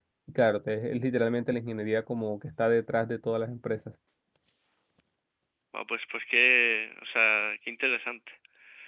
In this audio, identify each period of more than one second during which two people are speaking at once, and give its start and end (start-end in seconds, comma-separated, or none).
none